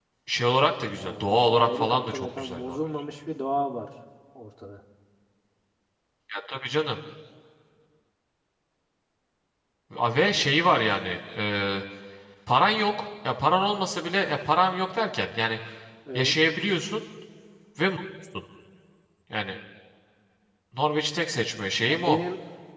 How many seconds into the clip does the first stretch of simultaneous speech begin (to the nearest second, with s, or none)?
1 s